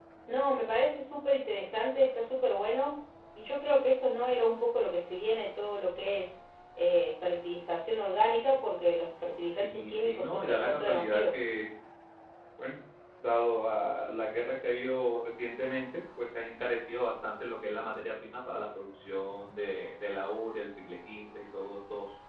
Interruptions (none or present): present